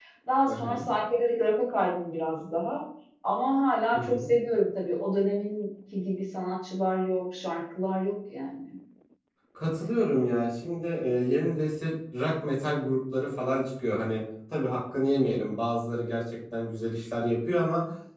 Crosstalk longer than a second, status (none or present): none